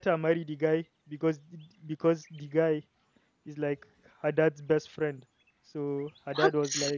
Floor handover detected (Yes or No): No